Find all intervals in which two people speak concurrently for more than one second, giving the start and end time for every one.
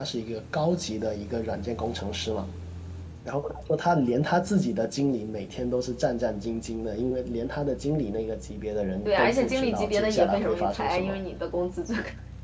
9.1-11.2

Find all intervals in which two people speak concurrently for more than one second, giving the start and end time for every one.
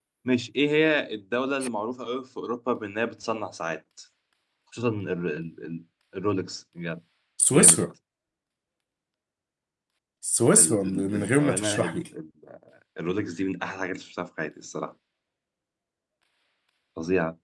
10.6-12.0

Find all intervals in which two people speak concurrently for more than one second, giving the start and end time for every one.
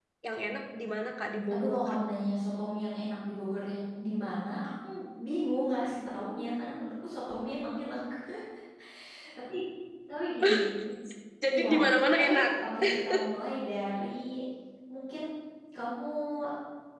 none

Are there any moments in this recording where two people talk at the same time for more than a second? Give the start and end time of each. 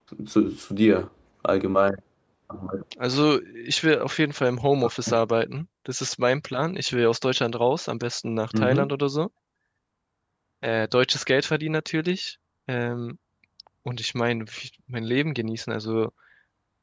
none

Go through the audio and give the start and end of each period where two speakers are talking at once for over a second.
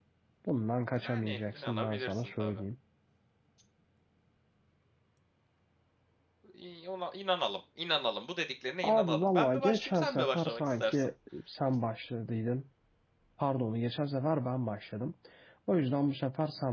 1.0-2.6, 8.8-11.1

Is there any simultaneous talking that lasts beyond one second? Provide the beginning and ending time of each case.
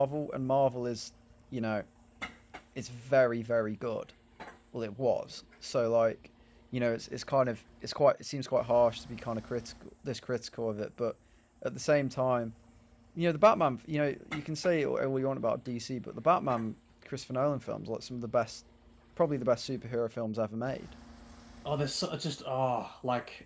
none

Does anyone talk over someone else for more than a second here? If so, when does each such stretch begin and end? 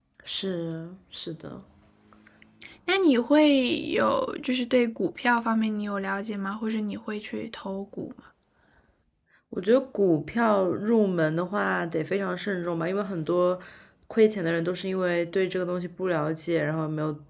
none

